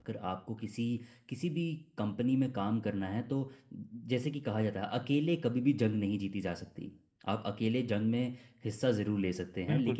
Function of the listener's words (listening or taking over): listening